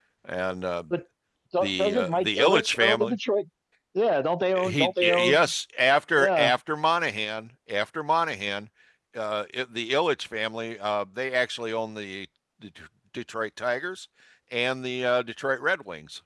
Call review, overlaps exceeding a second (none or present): present